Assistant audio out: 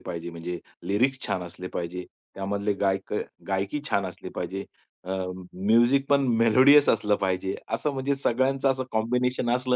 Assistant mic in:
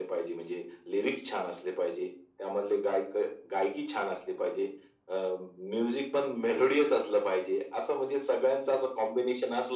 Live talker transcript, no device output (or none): none